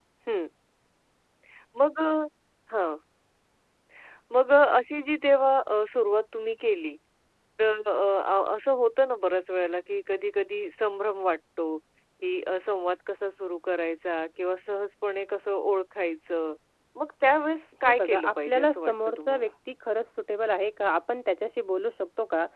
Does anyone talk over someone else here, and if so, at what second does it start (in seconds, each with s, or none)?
17.8 s